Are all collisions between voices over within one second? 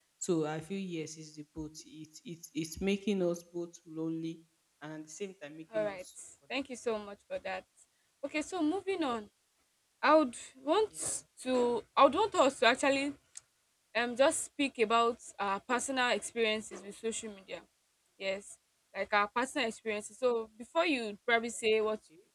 Yes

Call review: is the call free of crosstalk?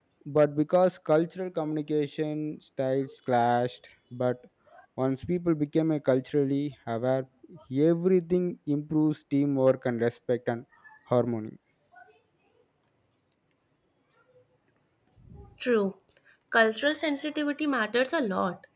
Yes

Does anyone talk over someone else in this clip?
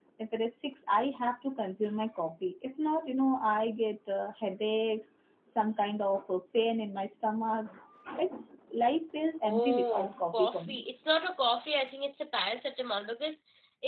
Yes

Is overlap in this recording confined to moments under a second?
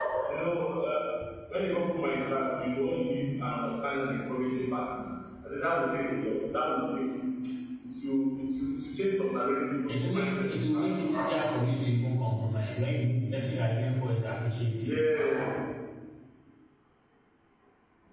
No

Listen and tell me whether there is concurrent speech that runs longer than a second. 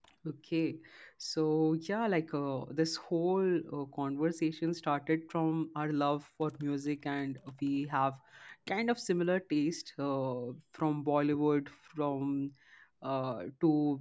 No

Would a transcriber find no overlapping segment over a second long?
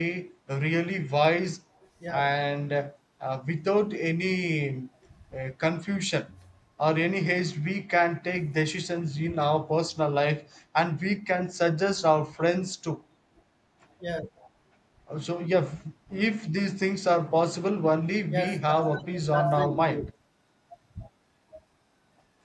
No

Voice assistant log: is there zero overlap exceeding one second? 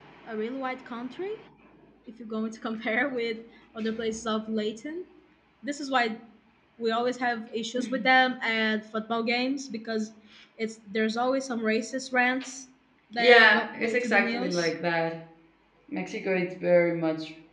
No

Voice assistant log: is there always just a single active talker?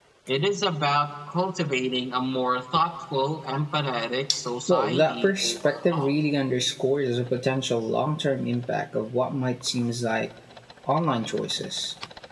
No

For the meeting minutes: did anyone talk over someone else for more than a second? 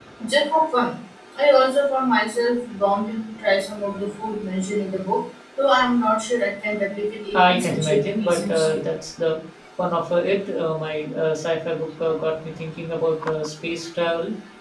Yes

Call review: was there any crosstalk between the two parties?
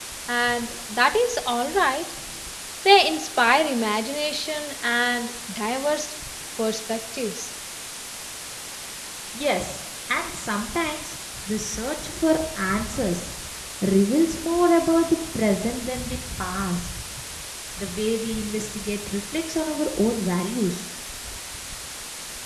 No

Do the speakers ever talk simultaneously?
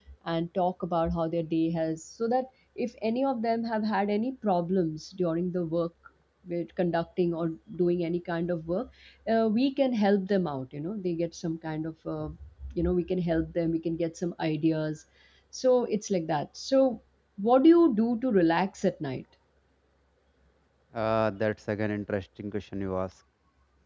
No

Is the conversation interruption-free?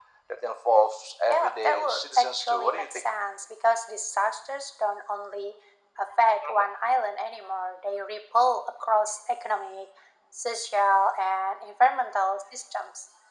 No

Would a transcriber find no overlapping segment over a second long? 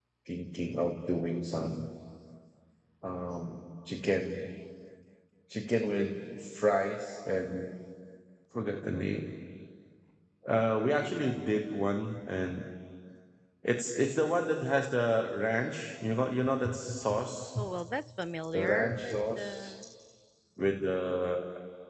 No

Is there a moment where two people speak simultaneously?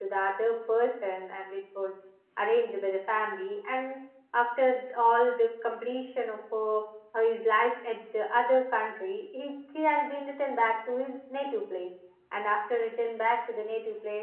No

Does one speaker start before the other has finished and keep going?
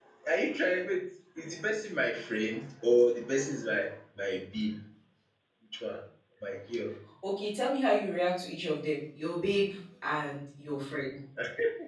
No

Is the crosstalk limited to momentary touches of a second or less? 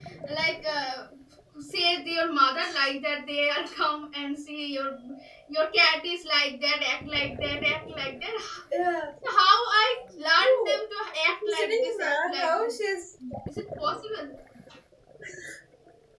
No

